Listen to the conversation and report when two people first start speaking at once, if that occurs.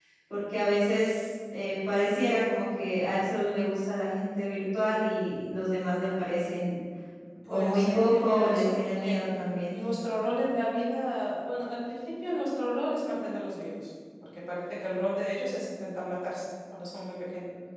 7.5 s

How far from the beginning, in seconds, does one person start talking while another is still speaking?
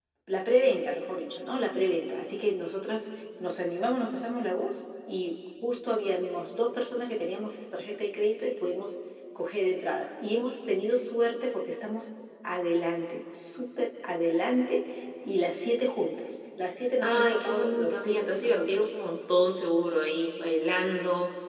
17.0 s

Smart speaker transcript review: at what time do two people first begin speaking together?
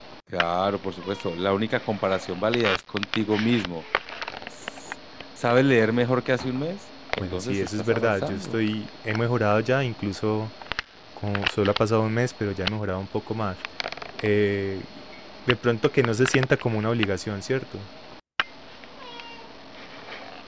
7.2 s

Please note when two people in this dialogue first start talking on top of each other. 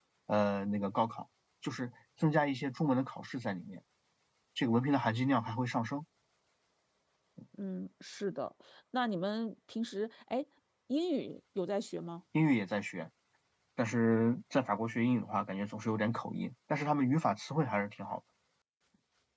none

